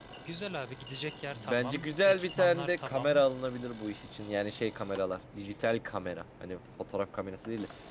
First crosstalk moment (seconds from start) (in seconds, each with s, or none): 1.3 s